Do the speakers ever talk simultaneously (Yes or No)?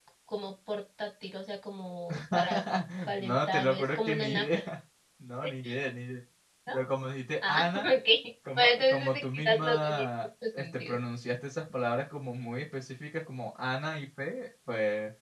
Yes